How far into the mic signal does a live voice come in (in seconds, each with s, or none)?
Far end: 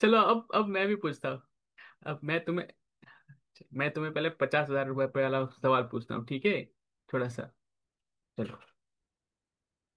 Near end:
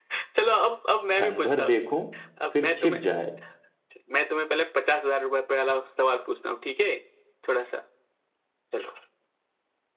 1.1 s